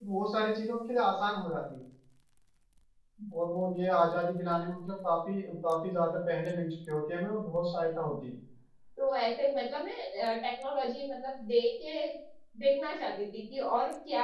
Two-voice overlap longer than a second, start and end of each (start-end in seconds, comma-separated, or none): none